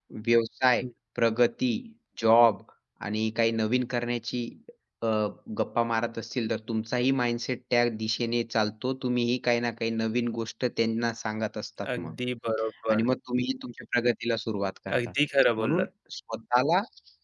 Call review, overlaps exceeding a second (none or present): none